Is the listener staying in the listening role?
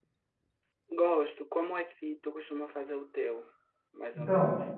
No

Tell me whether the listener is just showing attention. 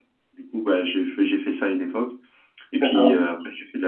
Yes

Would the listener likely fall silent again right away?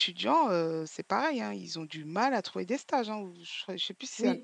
No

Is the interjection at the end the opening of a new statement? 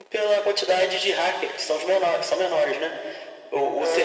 No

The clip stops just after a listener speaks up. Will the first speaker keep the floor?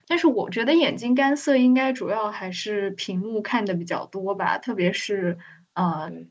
Yes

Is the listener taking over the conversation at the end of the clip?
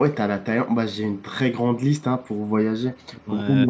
Yes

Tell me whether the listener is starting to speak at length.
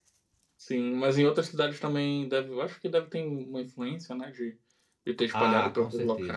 Yes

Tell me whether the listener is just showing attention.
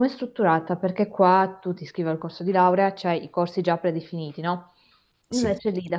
Yes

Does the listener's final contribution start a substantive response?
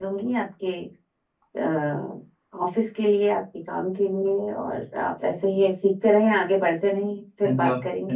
Yes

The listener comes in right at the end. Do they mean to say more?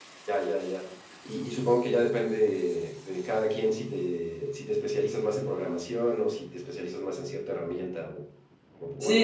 Yes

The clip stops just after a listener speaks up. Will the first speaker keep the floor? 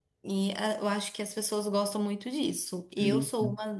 Yes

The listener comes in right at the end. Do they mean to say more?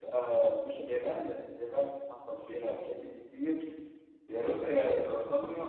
No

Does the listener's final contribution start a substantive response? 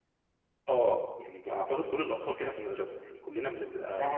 Yes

